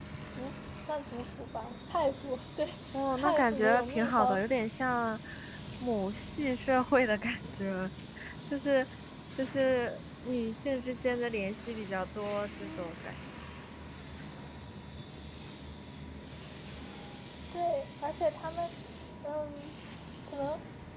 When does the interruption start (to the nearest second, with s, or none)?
3 s